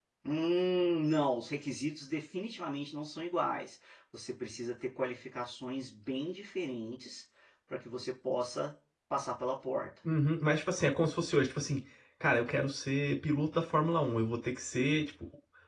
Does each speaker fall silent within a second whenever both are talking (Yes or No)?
Yes